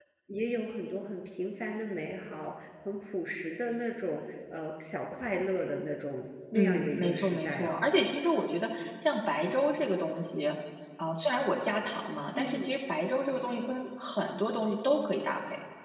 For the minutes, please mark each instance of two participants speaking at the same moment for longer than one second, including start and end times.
6.5-7.8

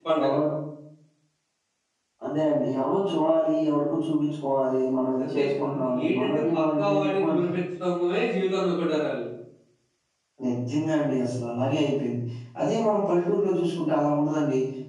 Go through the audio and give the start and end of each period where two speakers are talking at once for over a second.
5.2-7.4

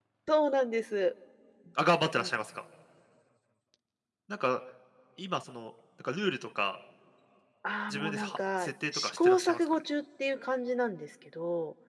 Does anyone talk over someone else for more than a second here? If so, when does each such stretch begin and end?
7.9-9.7

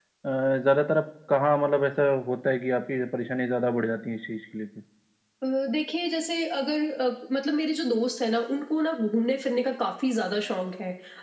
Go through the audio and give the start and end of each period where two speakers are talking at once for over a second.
none

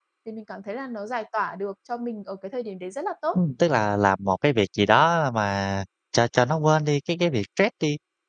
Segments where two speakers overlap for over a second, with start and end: none

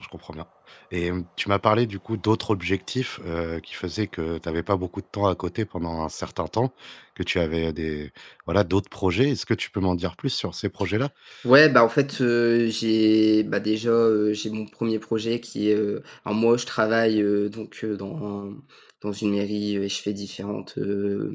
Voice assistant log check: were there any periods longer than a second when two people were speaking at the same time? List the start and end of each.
none

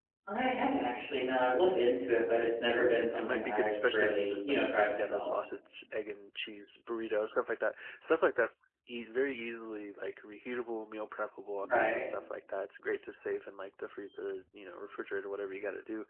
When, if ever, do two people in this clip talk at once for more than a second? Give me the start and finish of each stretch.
2.7-5.3

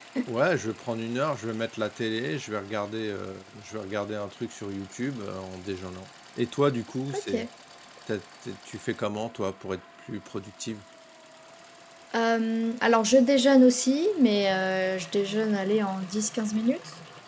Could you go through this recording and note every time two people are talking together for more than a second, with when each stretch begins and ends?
none

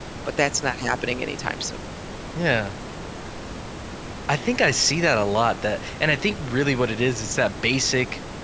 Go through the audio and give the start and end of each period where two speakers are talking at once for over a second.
none

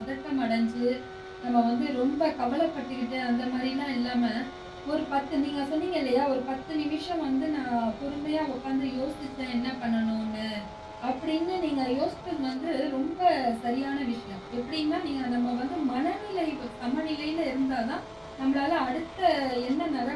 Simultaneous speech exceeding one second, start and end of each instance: none

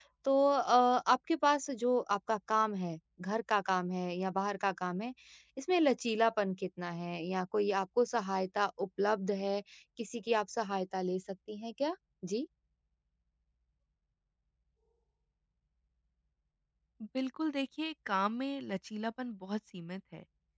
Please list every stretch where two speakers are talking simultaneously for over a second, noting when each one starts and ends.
none

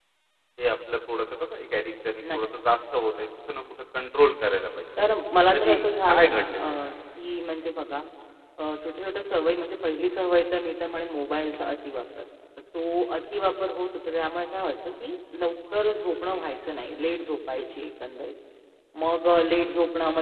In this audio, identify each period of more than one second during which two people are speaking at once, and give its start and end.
5.5-6.8

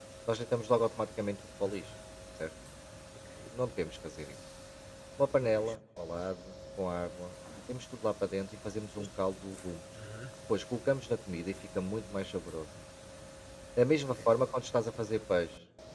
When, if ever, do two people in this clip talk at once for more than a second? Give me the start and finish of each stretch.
none

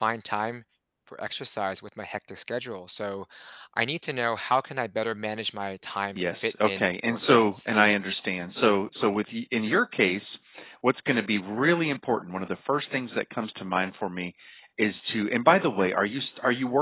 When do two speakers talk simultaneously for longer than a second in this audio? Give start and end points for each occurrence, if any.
6.2-7.7

